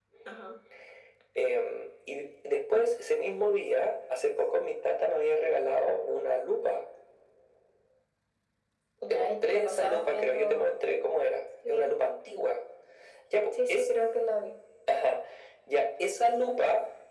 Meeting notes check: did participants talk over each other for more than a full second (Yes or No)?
Yes